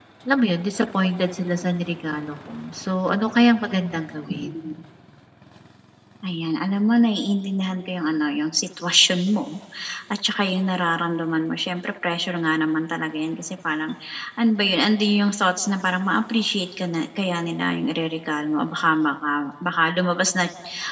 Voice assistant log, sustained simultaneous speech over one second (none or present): none